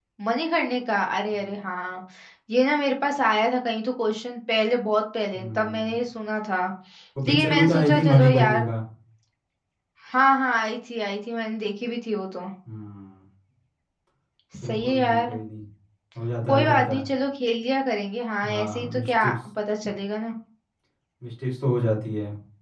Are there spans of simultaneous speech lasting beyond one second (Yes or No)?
Yes